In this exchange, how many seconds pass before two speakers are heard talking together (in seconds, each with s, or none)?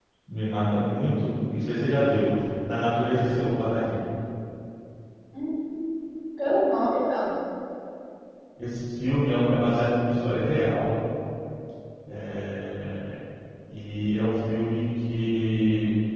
none